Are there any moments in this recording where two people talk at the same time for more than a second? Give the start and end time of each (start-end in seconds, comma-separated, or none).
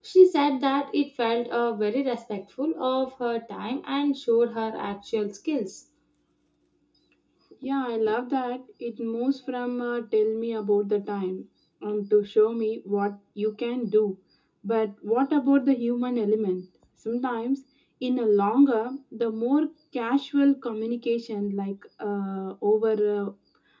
none